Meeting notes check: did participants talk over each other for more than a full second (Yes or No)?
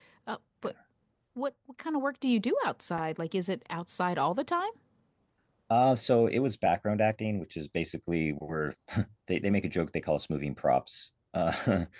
No